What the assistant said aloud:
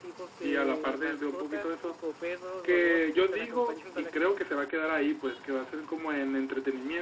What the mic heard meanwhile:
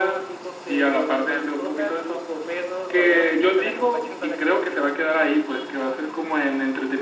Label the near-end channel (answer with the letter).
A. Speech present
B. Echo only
B